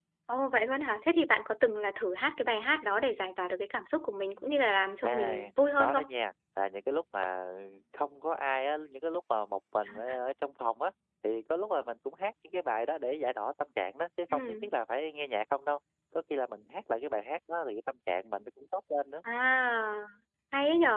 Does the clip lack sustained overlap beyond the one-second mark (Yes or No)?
Yes